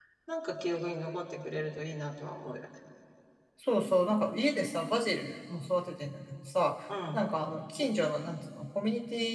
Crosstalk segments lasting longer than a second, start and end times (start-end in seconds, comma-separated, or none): none